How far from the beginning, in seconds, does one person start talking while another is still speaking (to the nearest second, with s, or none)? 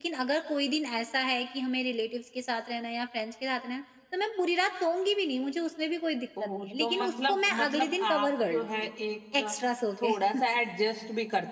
6 s